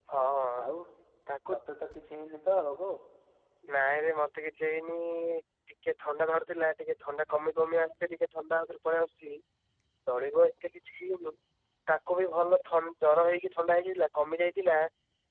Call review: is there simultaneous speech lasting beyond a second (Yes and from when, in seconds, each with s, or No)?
No